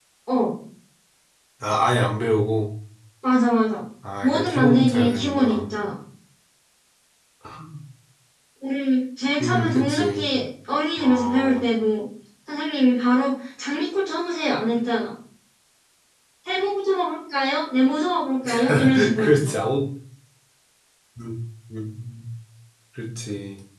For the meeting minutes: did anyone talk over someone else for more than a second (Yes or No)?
Yes